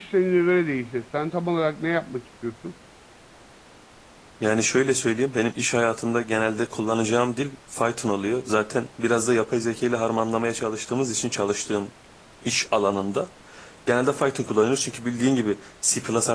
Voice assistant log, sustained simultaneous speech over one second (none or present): none